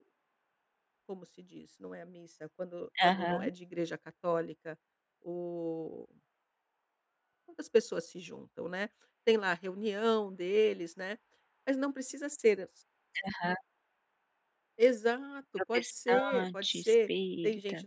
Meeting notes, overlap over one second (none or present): present